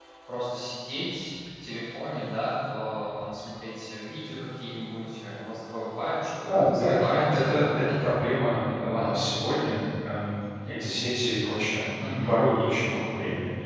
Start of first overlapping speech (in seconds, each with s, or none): 6.4 s